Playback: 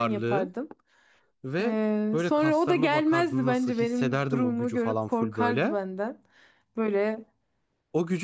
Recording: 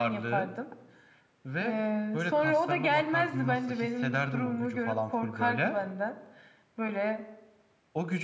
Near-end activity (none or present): none